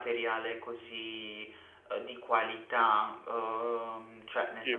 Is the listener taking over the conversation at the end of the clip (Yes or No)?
No